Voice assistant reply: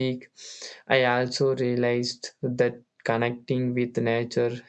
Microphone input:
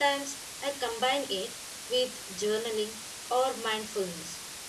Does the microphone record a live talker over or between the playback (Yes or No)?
Yes